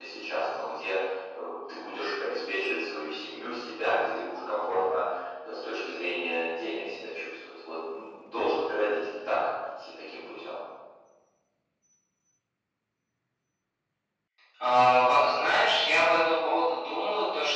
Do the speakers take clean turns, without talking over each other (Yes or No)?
Yes